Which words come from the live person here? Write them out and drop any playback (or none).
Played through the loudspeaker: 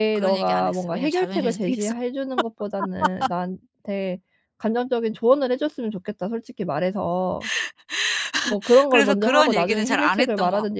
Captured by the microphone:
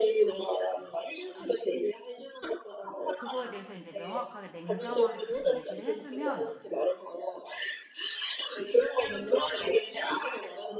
그거에 대해서 인제 명확하게 냉정하게 그렇게 얘기를 해 주면